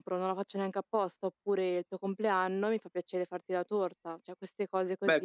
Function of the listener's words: taking over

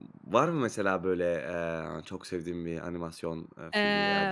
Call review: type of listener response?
taking over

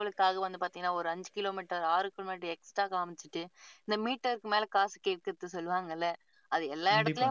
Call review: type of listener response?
listening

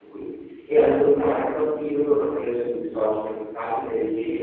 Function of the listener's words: listening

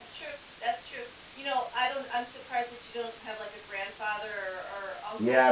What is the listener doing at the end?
taking over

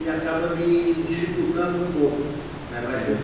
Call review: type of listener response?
listening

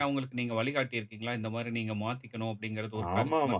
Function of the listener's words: taking over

